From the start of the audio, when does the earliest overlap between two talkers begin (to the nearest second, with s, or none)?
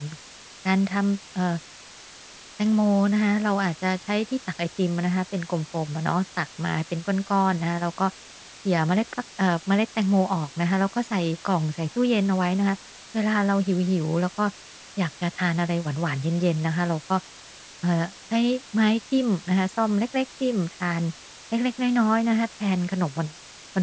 none